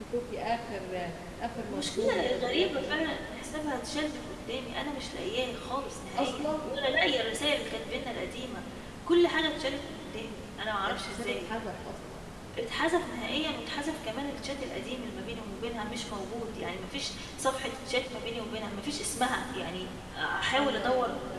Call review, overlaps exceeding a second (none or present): present